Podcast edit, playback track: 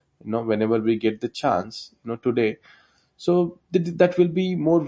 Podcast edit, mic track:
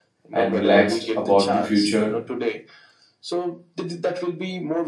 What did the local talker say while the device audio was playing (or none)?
and relaxed about the future